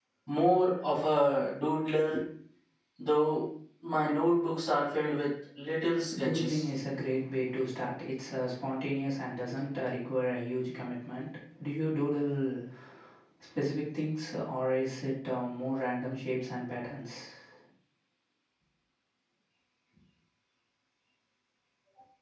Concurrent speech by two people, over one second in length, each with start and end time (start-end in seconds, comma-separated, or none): none